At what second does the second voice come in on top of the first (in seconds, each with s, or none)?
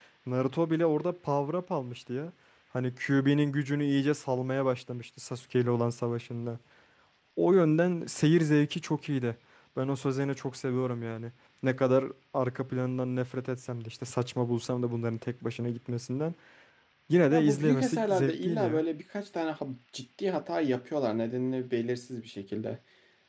17.3 s